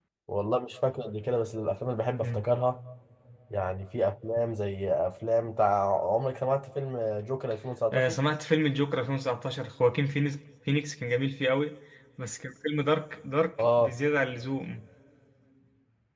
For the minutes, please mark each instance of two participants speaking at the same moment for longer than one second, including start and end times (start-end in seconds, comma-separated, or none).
none